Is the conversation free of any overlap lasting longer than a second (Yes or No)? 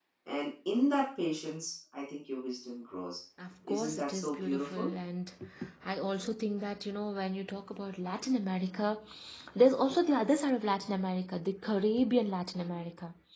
No